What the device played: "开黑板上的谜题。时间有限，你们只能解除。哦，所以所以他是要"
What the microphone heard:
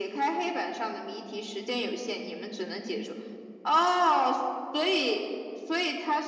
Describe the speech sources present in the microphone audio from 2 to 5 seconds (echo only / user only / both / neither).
echo only